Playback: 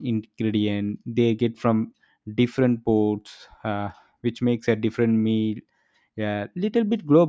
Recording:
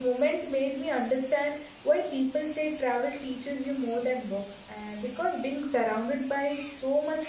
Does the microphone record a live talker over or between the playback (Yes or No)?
Yes